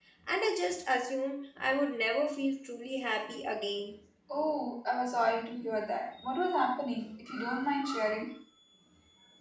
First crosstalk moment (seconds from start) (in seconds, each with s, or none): none